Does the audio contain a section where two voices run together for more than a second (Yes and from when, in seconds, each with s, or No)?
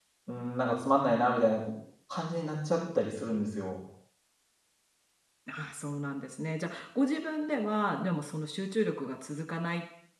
No